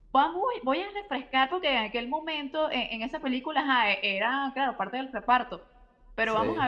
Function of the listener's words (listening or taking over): listening